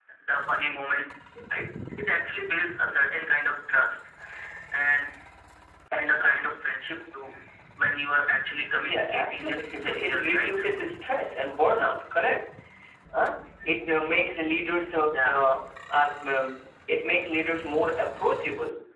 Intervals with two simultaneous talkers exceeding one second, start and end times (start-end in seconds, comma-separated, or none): 8.8-10.5